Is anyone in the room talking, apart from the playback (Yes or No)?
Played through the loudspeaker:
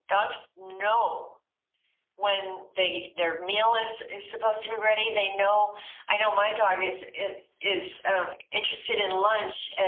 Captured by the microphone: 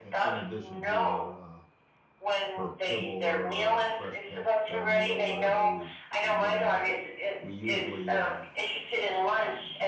Yes